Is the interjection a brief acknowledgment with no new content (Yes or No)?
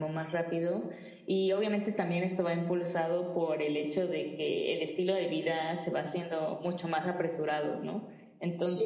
Yes